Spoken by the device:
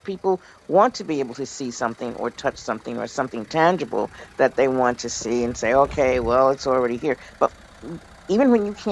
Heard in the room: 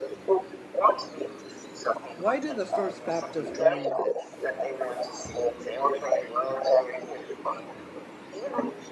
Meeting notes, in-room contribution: present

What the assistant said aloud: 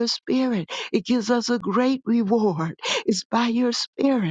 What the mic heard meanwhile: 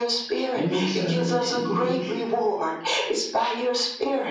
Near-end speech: present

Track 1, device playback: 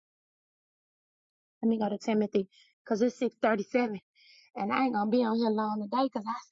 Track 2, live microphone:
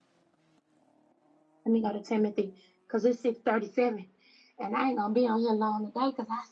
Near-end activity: none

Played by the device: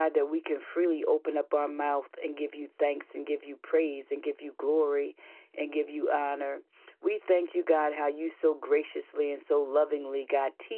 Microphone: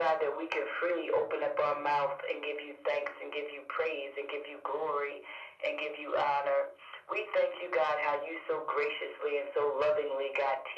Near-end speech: none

